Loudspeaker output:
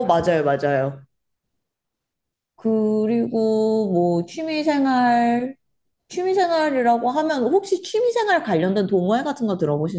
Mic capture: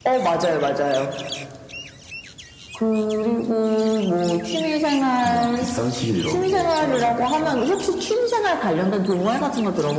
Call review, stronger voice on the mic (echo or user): echo